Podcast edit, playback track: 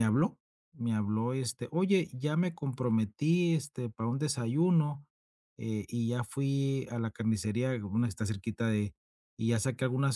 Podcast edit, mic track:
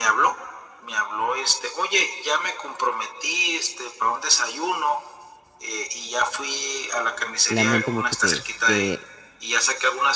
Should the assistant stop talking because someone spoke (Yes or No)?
Yes